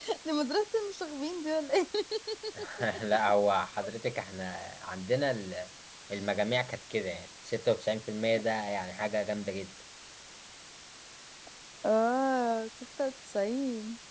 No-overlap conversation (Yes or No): Yes